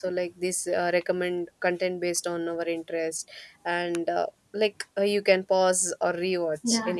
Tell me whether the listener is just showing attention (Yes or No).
No